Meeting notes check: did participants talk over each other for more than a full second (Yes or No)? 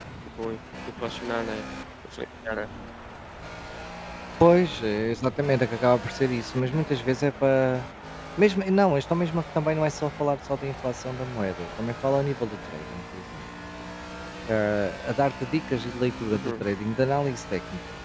No